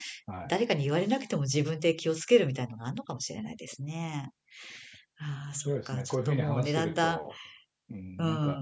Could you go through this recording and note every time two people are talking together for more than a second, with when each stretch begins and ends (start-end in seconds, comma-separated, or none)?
5.6-7.2